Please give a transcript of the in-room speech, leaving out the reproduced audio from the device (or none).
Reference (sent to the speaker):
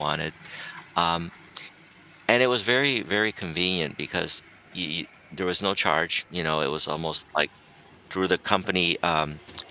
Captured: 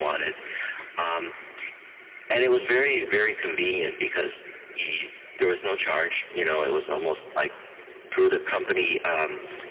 none